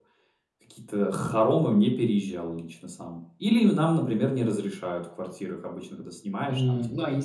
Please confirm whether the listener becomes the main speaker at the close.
Yes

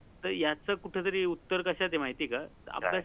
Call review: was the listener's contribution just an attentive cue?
Yes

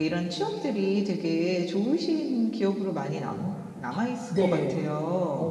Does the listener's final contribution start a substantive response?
Yes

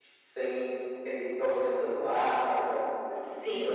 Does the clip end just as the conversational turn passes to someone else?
No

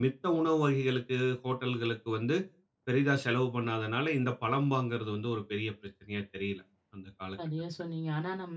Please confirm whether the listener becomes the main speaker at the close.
Yes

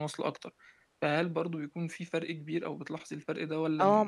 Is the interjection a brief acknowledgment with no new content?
No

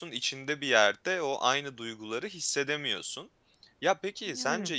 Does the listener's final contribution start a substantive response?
No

